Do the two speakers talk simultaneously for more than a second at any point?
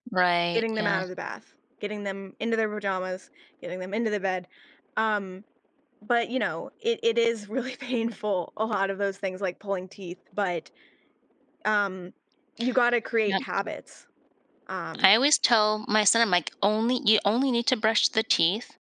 No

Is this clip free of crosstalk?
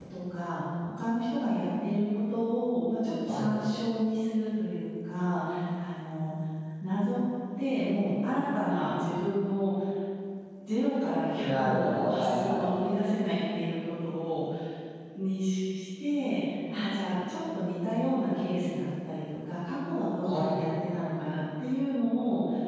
No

